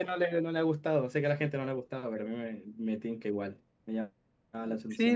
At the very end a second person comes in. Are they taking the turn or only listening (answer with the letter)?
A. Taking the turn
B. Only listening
A